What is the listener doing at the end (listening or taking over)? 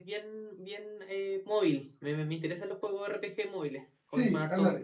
taking over